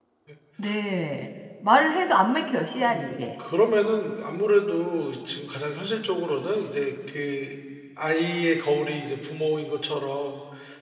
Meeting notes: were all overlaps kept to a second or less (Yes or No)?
Yes